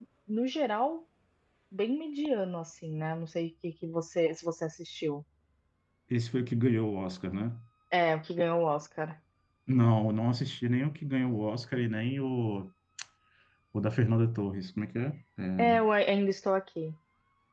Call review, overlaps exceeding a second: none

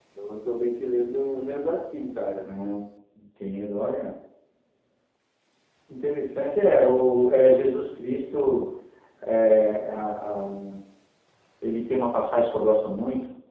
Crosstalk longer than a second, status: none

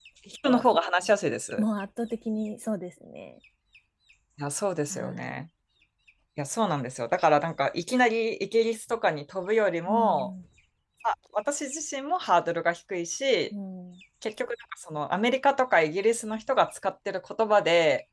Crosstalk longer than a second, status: none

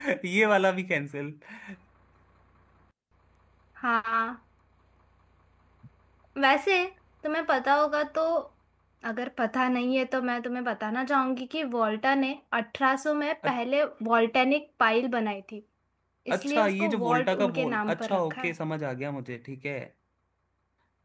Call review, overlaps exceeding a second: present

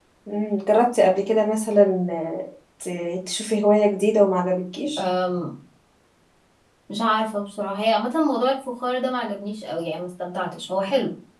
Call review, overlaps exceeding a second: none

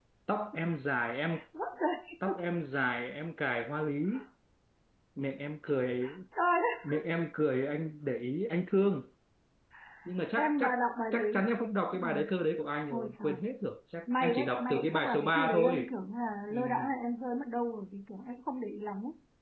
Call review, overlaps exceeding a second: present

